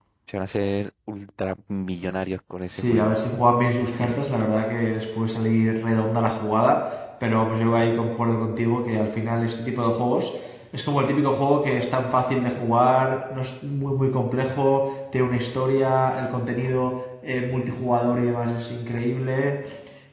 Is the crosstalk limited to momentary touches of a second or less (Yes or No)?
Yes